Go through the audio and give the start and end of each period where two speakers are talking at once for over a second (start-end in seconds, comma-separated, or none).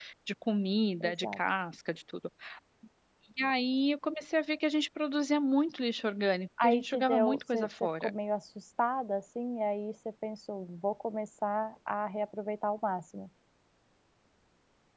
6.6-8.1